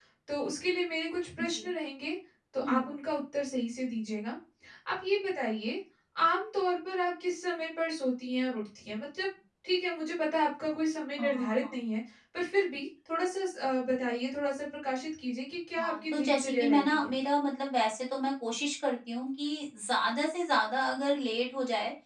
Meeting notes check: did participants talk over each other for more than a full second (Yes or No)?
Yes